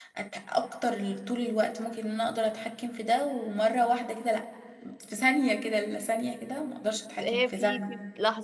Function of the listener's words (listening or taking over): taking over